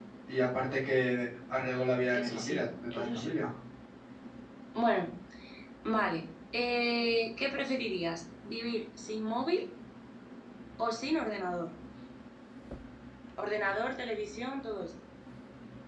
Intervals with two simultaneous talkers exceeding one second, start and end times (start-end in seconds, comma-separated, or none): 2.1-3.4